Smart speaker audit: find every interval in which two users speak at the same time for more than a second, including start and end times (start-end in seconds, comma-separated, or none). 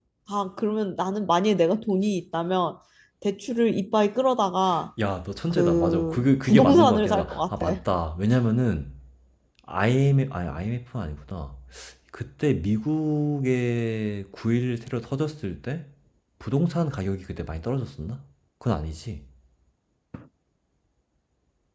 5.5-7.8